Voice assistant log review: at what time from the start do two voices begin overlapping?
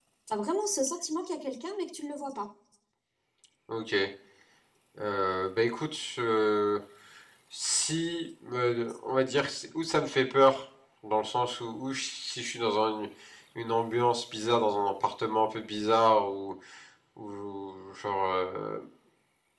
none

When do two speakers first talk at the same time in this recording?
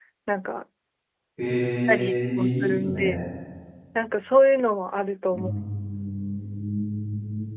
1.9 s

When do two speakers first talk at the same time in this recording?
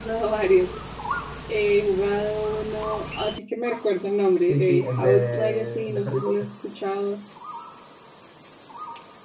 4.5 s

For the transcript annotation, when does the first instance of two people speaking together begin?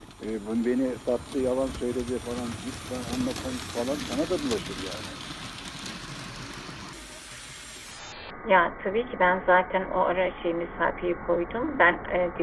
none

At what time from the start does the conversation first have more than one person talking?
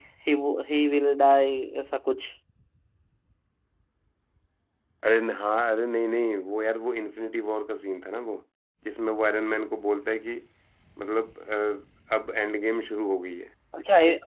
none

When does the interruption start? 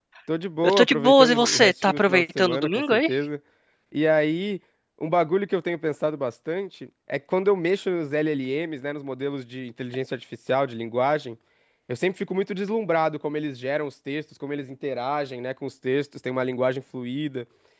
0.6 s

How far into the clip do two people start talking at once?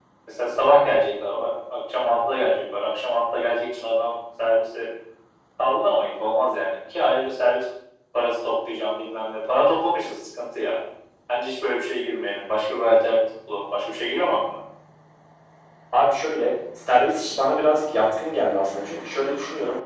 none

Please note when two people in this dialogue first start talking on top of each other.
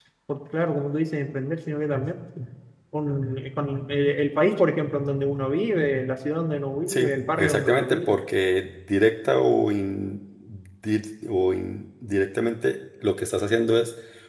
6.9 s

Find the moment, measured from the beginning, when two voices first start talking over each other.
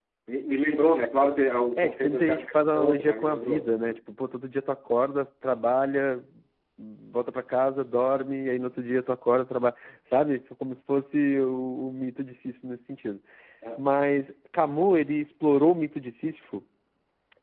1.8 s

